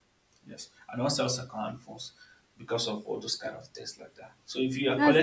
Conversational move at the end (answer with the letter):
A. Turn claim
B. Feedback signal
B